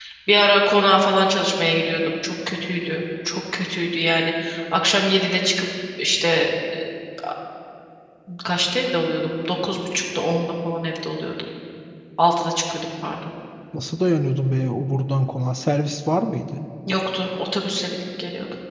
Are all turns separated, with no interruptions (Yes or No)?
Yes